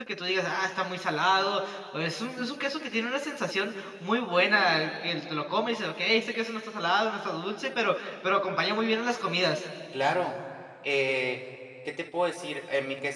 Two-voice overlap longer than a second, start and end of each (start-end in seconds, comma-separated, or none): none